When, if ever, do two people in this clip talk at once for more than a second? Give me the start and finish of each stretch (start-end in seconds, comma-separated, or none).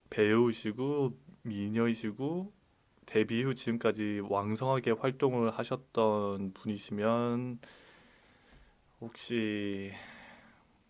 none